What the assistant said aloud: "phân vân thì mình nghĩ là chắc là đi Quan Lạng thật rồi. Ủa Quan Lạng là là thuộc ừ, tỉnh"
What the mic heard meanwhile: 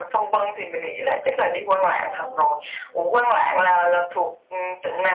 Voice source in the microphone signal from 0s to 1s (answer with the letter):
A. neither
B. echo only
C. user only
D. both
B